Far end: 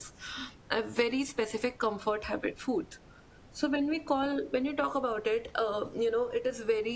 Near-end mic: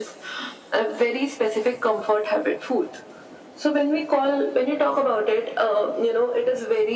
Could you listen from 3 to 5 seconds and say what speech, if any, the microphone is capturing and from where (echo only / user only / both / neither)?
echo only